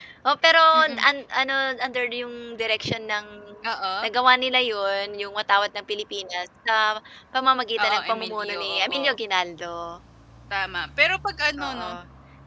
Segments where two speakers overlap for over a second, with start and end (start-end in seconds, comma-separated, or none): 7.8-9.2